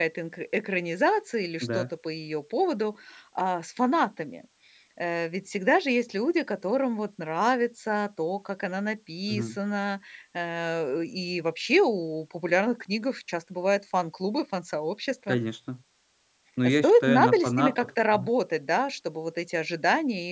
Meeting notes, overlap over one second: present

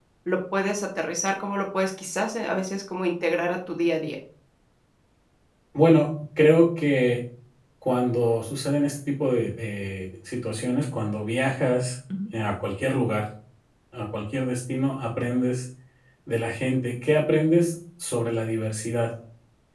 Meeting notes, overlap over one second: none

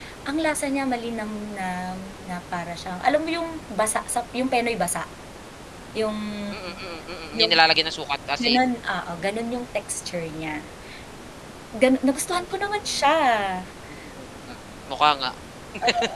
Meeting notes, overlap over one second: none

